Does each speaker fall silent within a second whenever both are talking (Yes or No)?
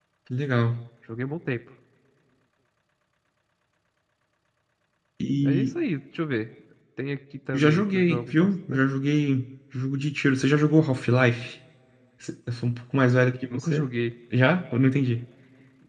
No